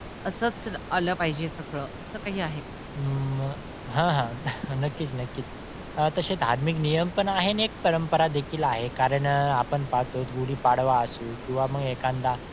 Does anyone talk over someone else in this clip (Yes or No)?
No